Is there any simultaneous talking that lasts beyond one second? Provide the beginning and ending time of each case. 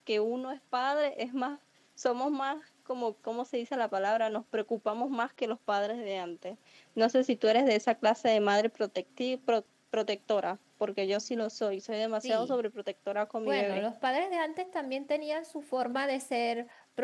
none

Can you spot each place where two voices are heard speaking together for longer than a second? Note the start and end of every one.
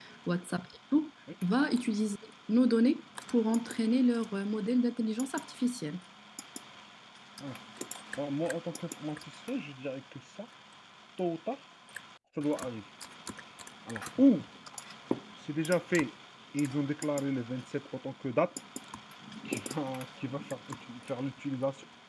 none

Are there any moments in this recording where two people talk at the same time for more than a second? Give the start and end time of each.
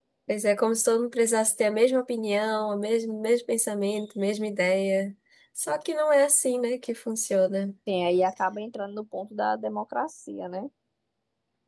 none

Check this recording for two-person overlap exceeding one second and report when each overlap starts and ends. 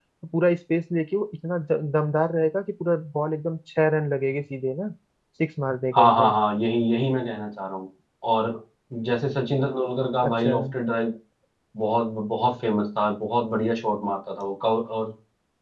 none

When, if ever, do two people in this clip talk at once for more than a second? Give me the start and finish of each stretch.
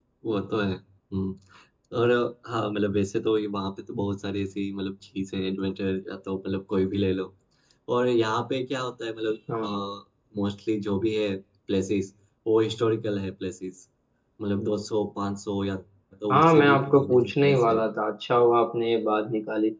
16.3-17.8

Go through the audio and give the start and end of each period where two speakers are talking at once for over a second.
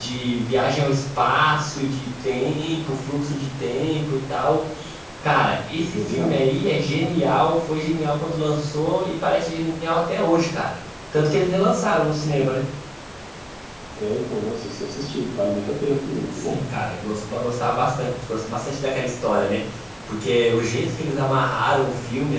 none

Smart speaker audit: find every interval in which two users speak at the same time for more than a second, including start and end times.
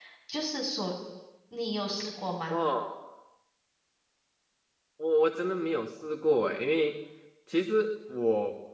none

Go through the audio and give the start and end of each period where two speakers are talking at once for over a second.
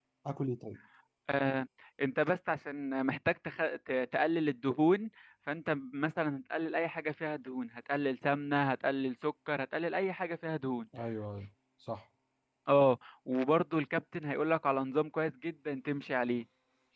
none

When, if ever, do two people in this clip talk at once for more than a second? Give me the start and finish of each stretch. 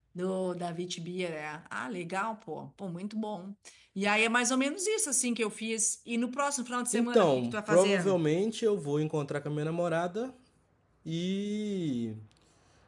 6.9-8.2

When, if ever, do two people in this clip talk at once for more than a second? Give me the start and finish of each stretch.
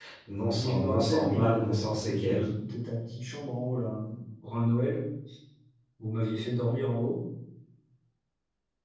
0.5-2.4

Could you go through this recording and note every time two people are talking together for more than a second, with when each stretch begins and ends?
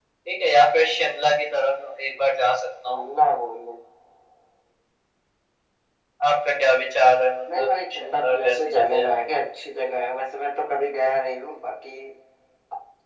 7.5-9.1

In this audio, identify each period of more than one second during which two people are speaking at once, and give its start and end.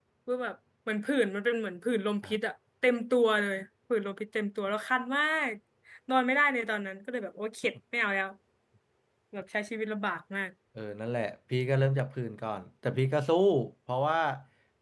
none

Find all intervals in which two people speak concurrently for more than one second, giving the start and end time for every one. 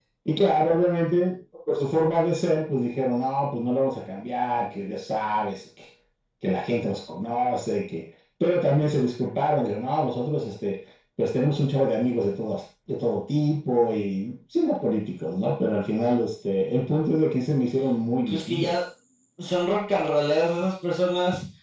none

